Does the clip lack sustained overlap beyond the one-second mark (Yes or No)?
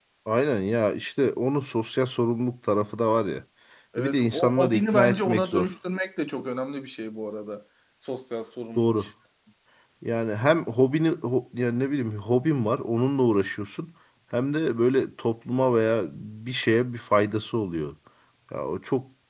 No